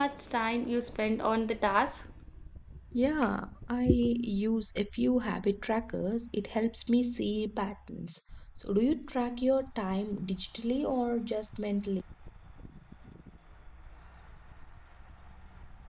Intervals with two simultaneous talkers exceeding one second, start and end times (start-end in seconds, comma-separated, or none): none